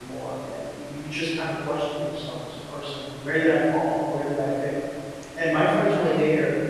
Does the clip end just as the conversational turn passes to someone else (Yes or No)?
No